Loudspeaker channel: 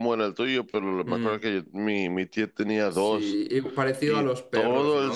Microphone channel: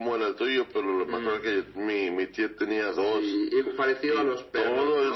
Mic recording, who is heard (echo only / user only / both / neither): echo only